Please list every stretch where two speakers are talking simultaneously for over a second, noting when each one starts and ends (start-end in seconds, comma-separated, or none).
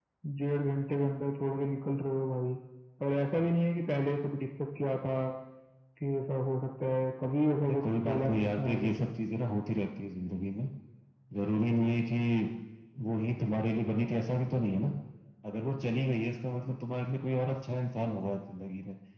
7.6-9.1